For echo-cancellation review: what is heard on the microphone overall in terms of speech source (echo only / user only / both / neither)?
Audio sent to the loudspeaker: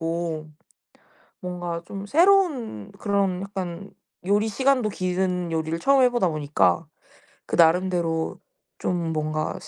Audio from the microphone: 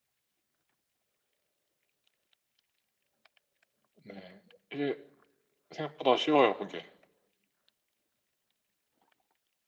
user only